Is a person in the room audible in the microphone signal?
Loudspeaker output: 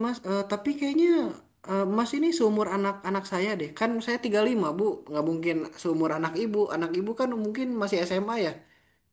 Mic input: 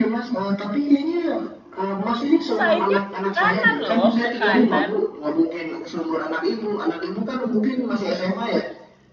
Yes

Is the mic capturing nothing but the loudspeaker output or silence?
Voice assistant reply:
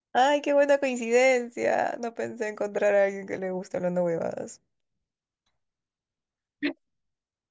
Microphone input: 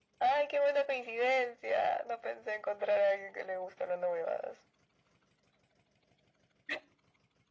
Yes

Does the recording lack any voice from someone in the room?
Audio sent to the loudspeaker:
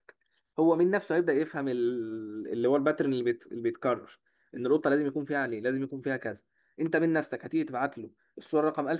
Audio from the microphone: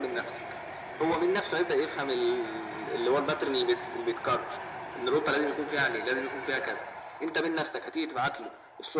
Yes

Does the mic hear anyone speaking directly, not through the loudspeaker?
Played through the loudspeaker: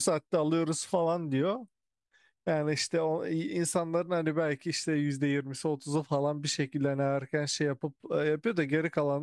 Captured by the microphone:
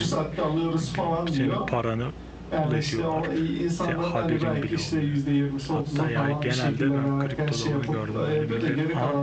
Yes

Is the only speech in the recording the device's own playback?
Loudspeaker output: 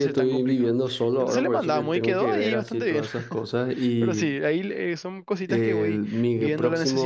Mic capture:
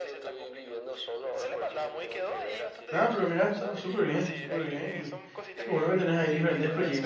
No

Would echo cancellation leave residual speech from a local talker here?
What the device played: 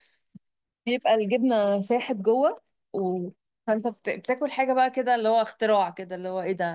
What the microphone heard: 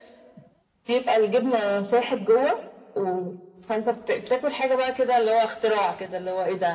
No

